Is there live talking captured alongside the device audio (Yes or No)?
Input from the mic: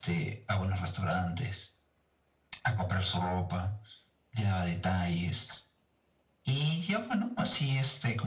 No